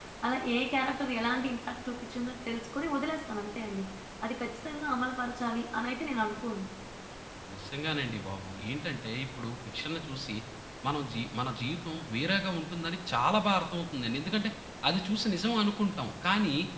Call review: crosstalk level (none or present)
none